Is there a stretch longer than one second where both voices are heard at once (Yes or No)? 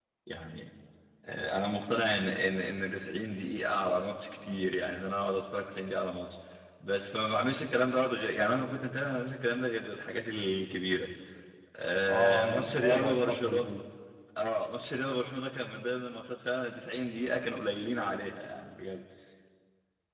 Yes